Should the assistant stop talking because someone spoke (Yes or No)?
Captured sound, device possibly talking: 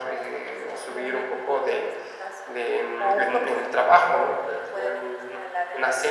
No